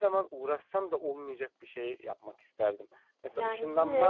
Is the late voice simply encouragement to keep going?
No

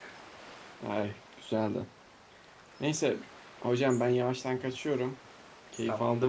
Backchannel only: No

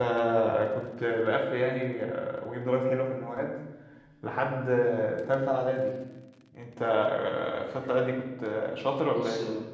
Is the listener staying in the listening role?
No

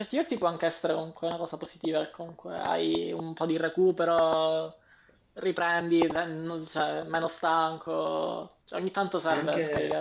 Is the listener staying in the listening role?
No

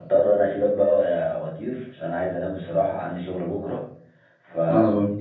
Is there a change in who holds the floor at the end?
No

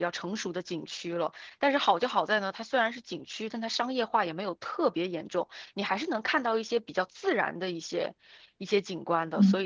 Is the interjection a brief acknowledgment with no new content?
No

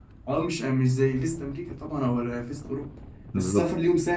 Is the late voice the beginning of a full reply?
No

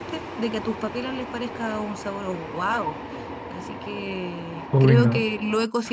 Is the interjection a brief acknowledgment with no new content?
Yes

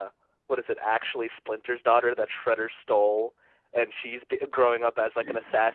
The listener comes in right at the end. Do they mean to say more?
No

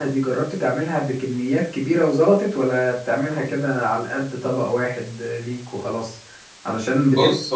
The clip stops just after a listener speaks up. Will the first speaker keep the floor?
Yes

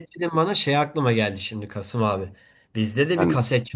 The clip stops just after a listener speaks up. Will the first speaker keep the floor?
Yes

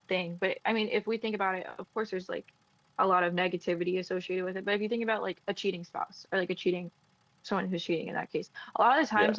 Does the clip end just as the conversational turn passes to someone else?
No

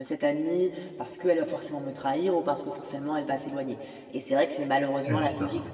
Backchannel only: Yes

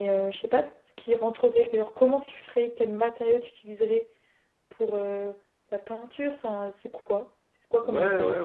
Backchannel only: No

